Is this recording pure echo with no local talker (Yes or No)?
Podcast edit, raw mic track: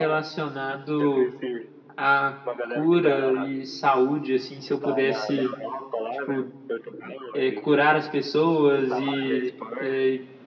No